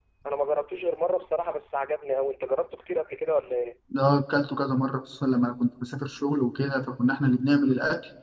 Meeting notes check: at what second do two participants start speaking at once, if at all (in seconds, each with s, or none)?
none